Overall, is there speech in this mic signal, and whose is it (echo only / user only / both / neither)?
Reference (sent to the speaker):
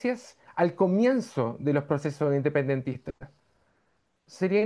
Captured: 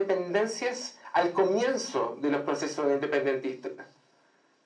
echo only